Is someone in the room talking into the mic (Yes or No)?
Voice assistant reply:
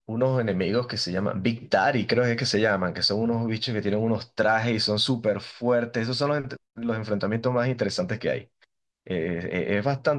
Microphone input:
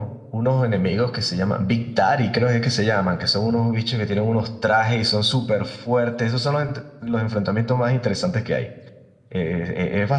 No